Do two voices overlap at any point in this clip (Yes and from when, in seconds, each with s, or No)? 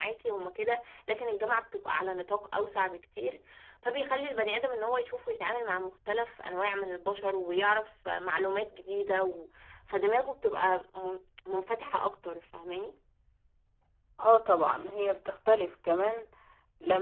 No